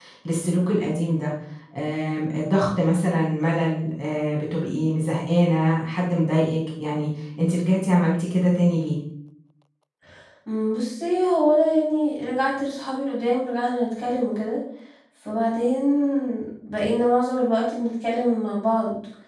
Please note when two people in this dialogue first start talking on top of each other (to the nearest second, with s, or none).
none